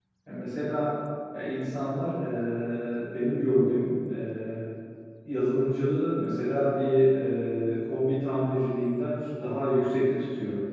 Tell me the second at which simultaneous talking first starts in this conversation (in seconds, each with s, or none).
none